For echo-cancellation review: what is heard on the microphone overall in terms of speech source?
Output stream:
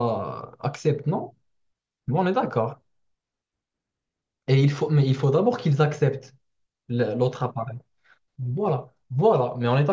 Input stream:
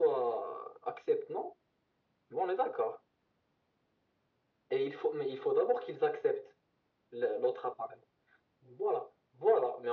echo only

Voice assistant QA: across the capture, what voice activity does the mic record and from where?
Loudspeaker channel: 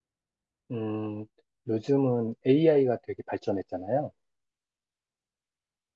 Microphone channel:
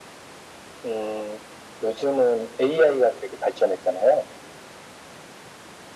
echo only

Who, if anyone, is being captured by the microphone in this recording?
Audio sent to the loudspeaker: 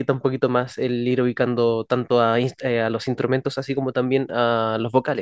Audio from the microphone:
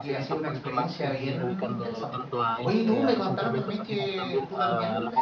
both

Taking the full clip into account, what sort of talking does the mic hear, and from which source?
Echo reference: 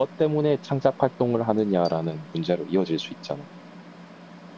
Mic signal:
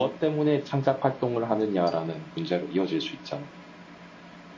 echo only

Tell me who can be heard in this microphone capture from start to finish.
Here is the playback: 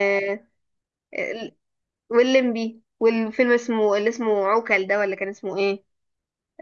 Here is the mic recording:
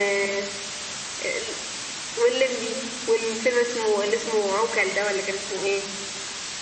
echo only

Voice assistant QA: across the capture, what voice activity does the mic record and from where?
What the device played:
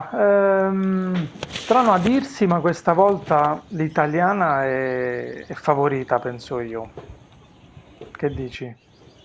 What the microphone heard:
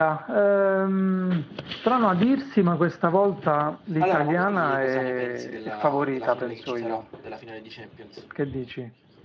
both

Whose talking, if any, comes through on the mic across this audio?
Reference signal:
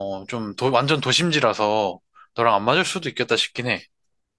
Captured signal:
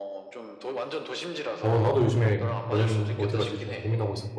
both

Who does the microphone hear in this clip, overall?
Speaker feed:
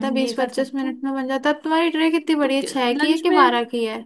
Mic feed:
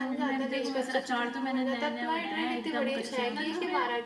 both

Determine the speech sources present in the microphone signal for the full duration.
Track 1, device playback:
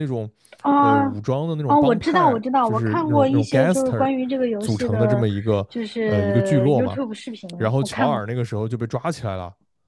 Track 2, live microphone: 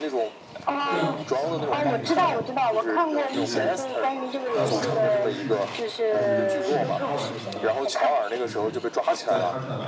both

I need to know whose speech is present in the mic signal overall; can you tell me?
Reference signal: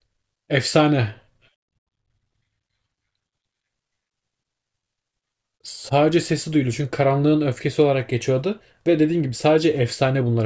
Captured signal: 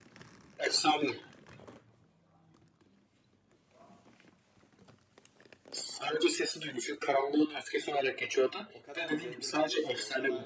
both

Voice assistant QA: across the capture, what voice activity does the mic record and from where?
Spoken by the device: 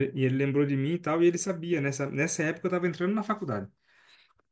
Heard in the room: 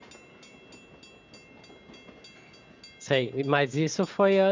user only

